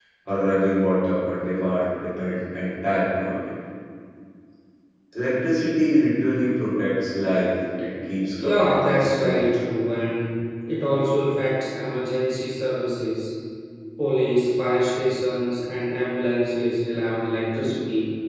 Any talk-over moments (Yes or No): Yes